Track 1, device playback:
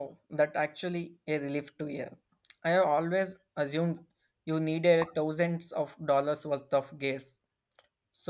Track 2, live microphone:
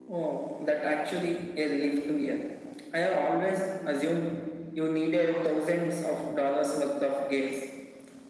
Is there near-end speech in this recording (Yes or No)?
No